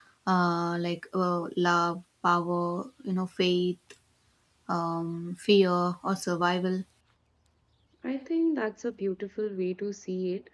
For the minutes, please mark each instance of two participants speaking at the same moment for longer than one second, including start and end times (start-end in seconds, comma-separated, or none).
none